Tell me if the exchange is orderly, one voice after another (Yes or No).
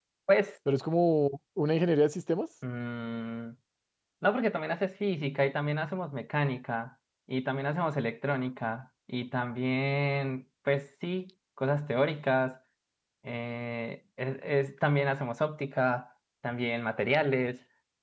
Yes